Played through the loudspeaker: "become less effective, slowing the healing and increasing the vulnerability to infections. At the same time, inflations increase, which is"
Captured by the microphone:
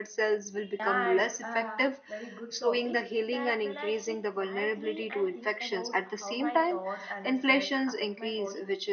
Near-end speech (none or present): present